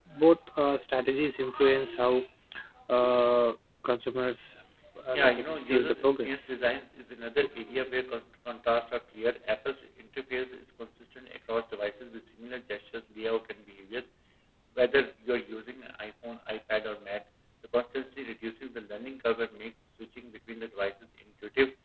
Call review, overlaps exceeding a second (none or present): present